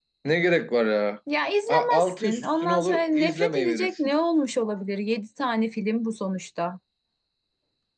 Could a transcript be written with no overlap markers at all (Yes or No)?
No